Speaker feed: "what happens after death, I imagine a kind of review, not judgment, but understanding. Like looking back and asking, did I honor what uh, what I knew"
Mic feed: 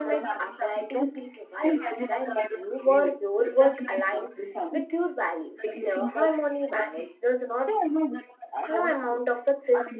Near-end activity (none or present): present